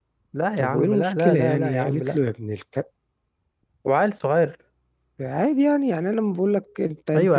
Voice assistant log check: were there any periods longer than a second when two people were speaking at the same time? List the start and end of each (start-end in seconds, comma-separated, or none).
0.6-2.2